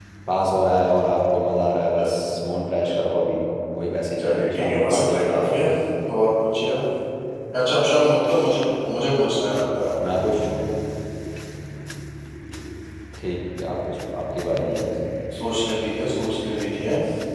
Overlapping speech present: Yes, from 4.2 s

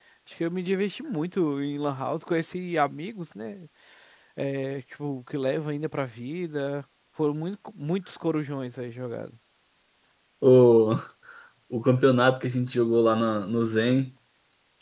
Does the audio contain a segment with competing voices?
No

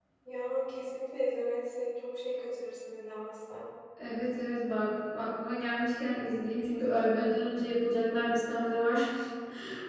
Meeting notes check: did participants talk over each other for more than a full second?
No

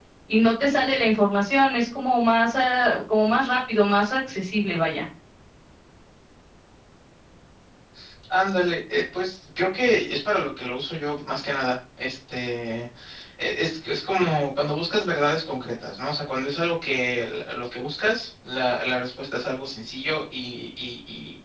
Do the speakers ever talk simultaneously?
No

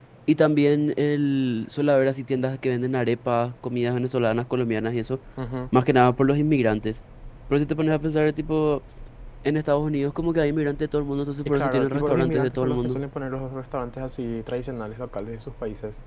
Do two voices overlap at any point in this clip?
Yes, from 11.4 s

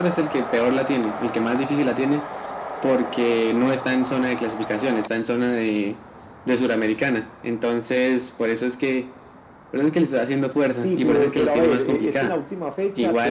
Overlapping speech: Yes, from 10.8 s

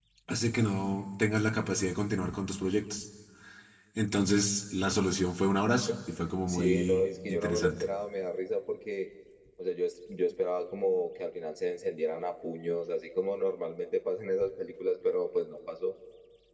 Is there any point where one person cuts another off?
Yes, from 6.5 s

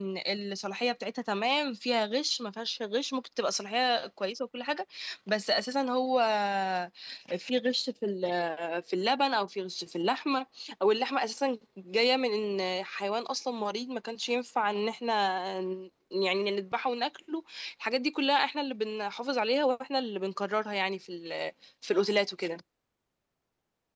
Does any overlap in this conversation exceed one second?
No

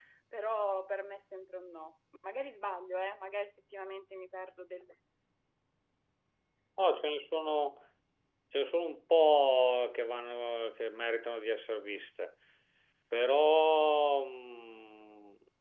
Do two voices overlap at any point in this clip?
No

